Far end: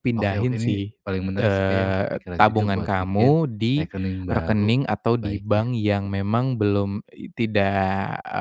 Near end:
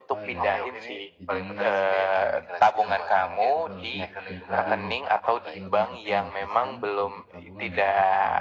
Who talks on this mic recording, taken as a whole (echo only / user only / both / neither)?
both